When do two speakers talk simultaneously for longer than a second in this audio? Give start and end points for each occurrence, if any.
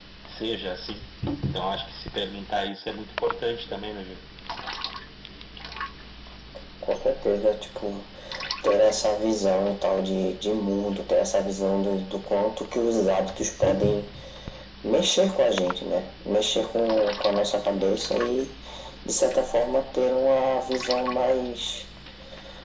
none

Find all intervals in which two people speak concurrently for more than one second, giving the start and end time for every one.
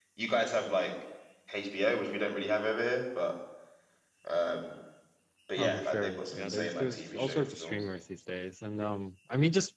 5.5-7.8

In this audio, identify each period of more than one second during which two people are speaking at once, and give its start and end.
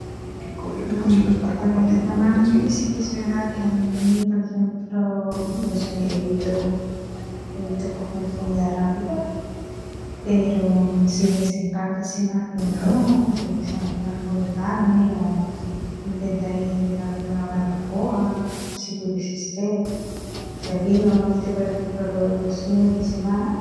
0.8-2.8

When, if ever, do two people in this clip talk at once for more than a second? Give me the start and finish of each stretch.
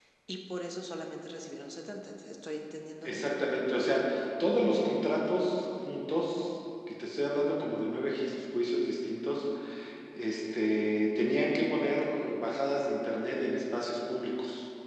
none

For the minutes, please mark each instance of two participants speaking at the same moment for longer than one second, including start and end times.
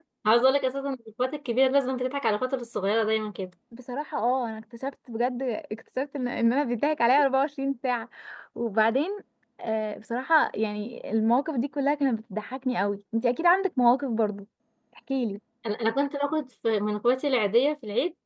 none

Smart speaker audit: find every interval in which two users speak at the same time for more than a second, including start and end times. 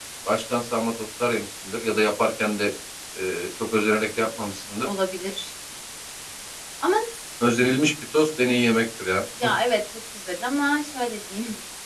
none

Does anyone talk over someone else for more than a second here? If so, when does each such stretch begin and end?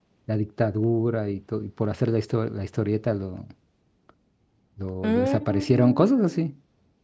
5.0-6.5

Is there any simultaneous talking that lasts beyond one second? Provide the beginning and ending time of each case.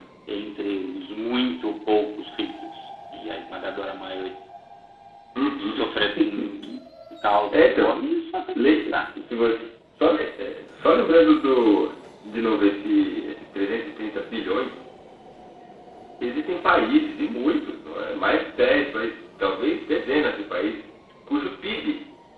none

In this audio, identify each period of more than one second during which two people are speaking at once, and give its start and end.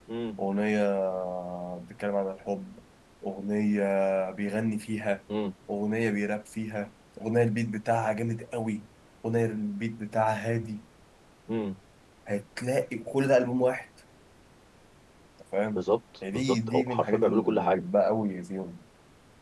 16.3-17.9

